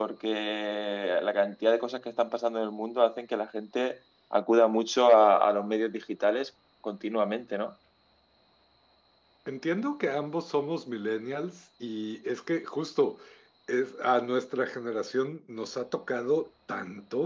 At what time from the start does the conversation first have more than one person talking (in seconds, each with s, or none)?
none